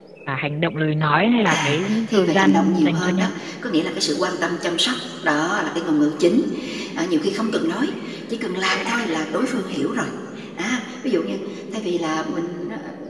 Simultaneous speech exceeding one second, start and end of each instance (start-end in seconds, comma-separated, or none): 1.5-3.3